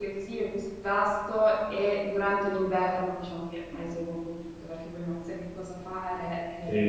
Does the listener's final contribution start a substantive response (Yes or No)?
Yes